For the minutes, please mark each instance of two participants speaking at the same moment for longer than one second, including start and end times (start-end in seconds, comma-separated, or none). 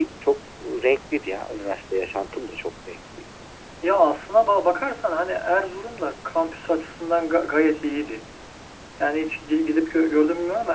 none